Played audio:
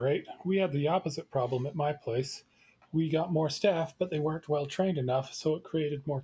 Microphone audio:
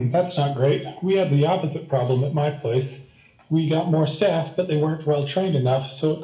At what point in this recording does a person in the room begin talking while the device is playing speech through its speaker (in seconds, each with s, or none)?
none